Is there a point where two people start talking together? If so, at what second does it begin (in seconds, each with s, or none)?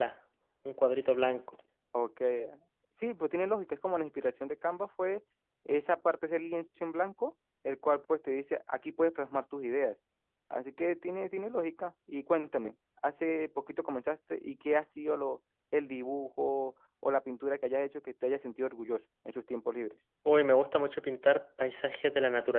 none